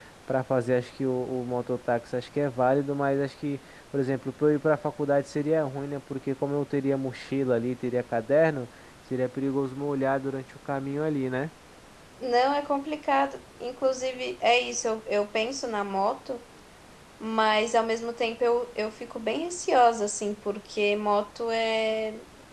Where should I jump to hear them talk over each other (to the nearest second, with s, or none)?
none